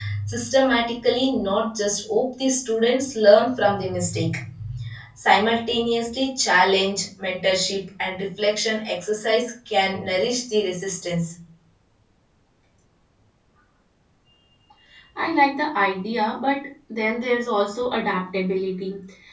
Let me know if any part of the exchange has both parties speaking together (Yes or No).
No